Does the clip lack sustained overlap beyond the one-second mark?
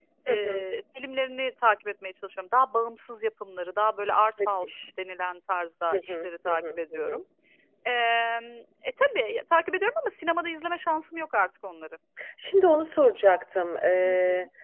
No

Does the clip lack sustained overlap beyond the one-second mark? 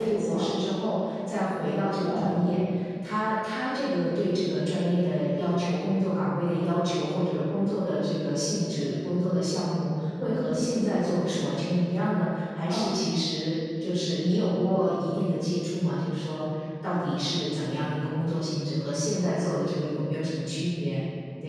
Yes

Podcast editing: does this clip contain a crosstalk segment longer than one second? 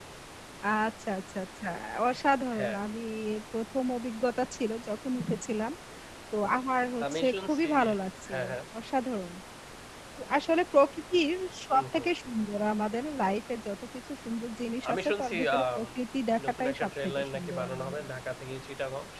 Yes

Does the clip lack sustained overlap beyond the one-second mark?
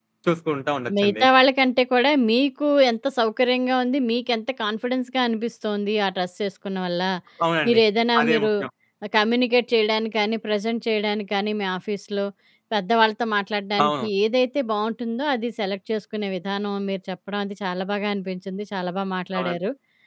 Yes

